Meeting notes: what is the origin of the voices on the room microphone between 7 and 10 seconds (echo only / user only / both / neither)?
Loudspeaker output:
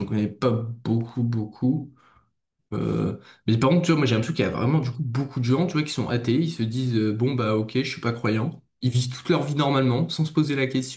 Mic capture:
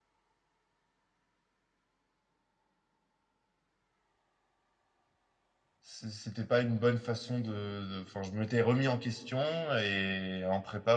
user only